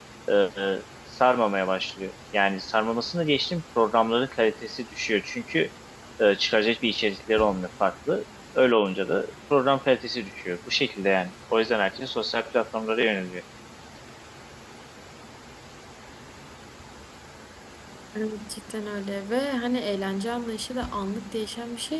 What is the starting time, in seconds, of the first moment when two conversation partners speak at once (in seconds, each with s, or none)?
none